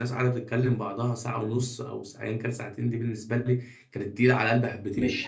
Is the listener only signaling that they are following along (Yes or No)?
No